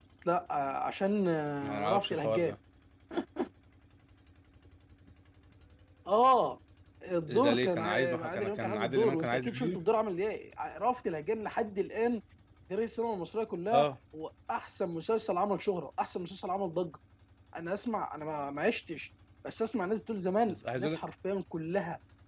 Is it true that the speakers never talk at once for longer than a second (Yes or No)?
No